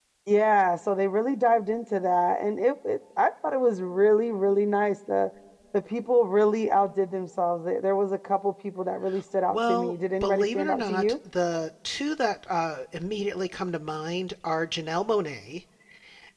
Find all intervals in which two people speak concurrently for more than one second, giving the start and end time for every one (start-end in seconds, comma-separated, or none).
9.5-11.2